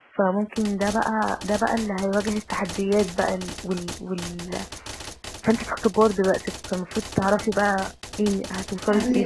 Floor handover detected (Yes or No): Yes